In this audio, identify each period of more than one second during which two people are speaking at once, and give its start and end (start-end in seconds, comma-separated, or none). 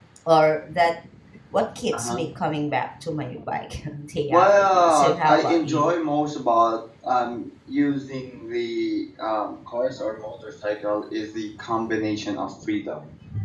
4.3-5.9